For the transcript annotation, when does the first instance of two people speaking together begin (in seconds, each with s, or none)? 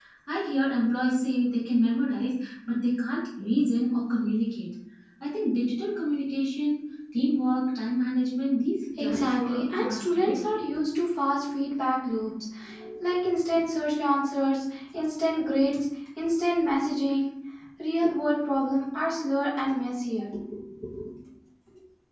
9.0 s